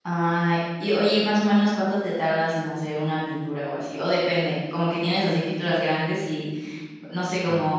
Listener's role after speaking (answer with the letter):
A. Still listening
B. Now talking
A